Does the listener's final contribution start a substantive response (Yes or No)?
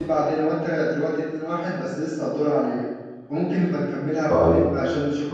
Yes